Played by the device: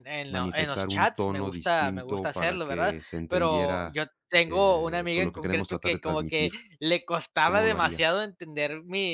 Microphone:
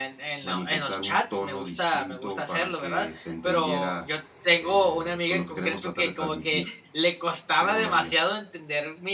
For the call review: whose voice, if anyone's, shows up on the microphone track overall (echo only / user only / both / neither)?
echo only